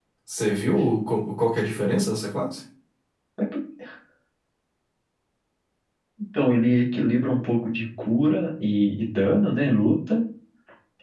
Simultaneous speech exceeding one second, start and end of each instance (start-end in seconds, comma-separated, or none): none